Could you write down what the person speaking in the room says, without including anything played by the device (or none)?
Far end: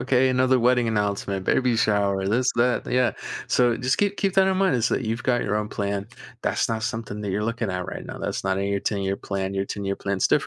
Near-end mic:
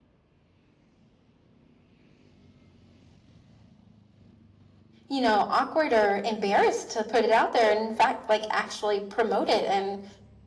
you know, awkward or embarrassed to put it out there. And in fact, like actually promote it and